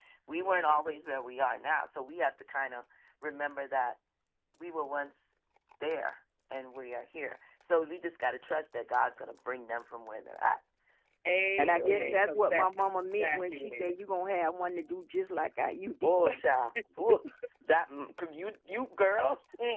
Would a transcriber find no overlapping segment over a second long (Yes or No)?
No